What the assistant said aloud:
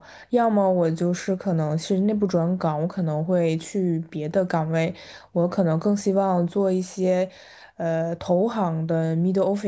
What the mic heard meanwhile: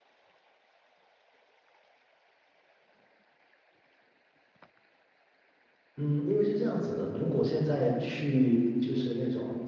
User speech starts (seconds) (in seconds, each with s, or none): 6.0 s